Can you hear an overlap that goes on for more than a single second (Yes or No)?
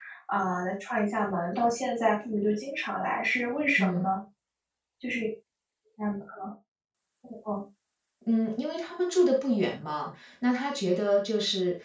No